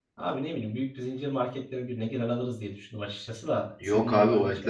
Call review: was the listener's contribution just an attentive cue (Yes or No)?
No